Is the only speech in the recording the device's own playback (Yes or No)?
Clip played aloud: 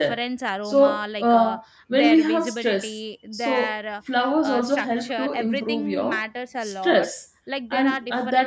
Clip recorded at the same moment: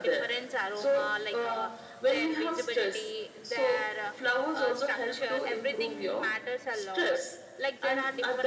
Yes